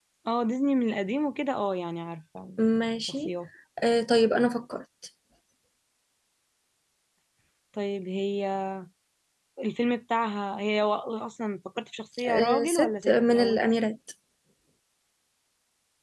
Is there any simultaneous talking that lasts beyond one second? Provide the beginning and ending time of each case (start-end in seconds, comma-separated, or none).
12.3-13.6